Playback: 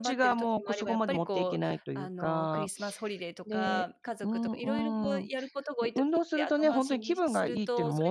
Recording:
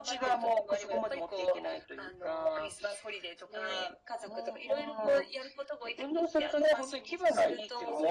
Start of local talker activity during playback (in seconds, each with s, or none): none